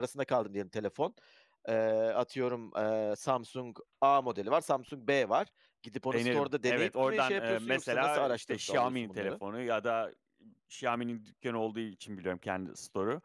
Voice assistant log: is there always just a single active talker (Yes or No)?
No